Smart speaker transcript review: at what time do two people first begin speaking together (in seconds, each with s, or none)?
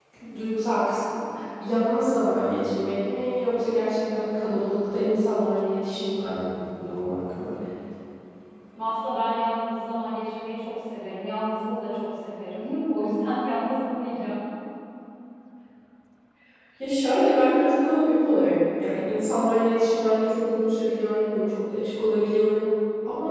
none